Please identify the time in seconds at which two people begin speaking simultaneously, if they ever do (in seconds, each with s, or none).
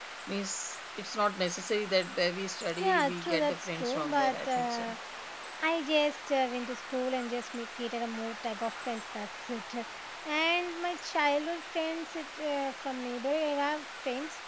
2.8 s